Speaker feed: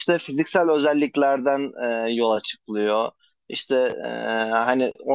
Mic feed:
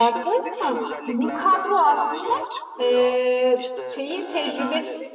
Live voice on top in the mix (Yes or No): Yes